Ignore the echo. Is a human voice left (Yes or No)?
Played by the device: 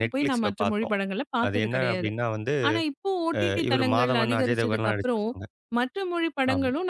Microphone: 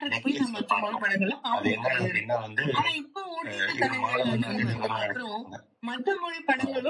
Yes